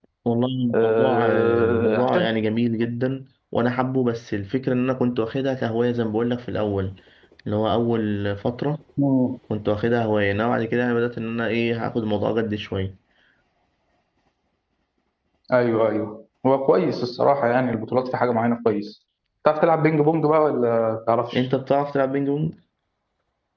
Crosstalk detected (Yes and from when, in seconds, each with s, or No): Yes, from 0.7 s